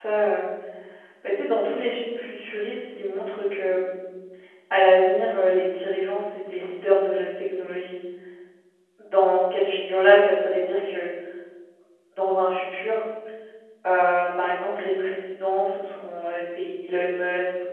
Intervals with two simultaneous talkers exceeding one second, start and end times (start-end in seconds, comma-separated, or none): none